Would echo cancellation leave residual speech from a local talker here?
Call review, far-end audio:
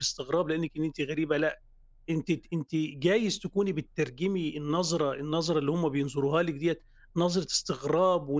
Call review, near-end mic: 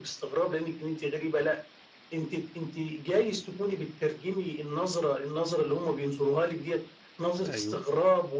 Yes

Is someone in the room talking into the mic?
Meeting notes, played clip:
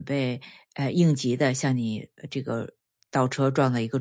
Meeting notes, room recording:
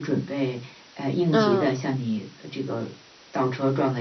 Yes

